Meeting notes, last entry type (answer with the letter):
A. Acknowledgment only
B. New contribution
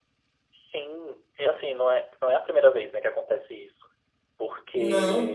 A